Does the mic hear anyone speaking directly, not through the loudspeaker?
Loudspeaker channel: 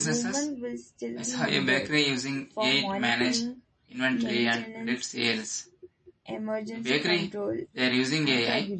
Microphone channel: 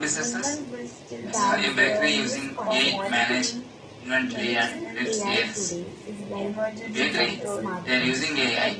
Yes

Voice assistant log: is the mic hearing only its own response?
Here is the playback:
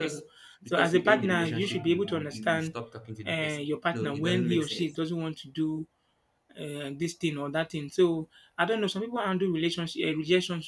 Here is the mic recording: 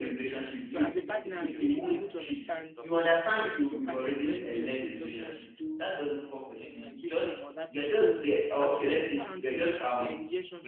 No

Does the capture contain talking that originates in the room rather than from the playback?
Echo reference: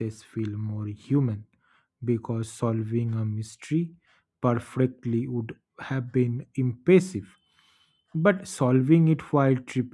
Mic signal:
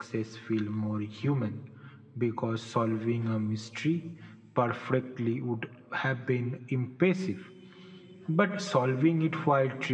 No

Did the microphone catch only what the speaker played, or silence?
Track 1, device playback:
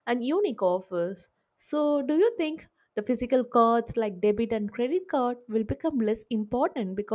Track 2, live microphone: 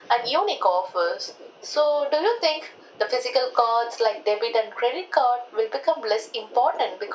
Yes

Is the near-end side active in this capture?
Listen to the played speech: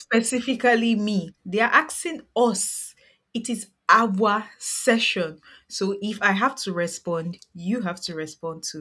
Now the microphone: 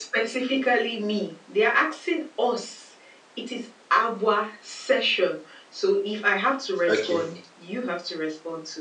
Yes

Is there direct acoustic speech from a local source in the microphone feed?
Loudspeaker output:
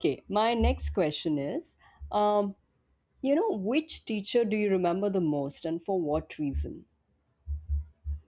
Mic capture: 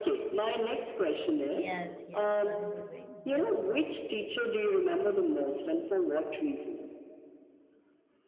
Yes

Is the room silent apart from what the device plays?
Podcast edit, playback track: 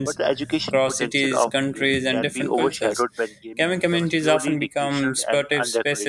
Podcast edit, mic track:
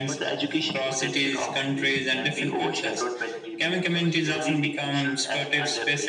Yes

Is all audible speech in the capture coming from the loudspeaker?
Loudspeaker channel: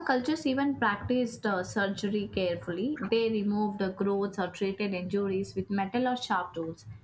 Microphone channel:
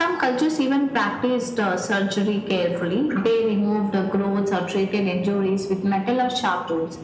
Yes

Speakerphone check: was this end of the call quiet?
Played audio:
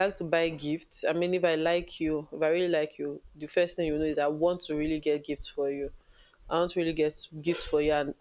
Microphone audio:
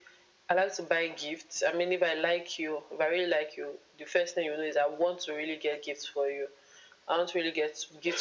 Yes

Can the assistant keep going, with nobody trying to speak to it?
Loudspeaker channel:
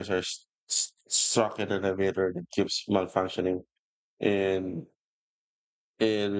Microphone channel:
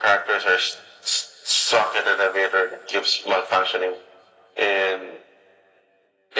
Yes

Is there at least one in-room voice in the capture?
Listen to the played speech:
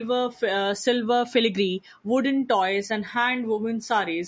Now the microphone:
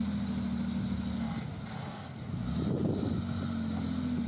No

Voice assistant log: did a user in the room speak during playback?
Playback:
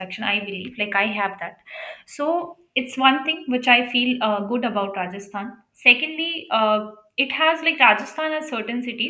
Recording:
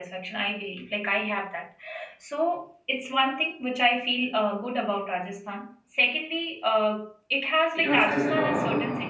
Yes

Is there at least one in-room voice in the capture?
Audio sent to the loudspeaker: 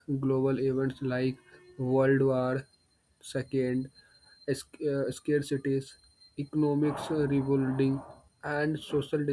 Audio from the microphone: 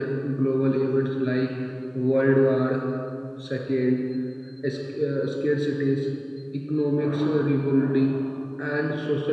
No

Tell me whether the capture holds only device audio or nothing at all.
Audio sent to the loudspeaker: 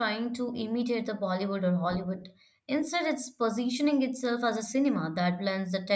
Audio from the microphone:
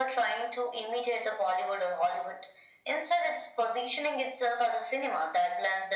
Yes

